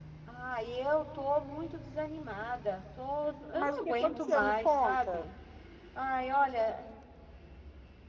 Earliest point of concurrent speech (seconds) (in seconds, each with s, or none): 3.5 s